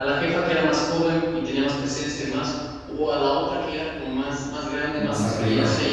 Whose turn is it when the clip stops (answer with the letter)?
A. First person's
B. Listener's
A